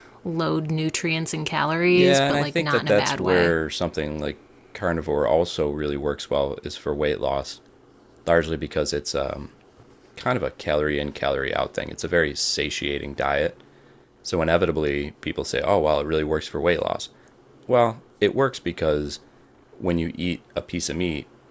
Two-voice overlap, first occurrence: 1.9 s

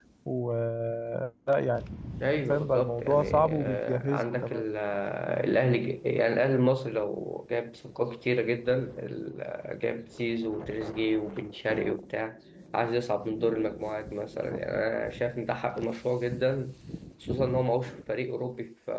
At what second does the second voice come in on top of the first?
2.5 s

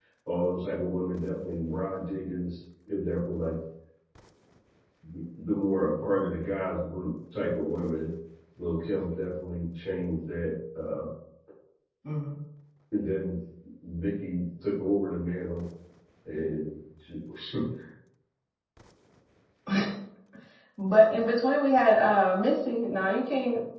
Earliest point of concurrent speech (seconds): none

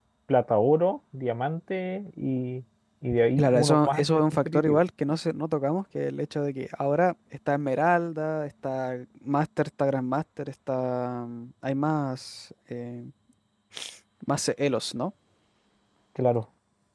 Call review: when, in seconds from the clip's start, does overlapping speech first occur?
3.4 s

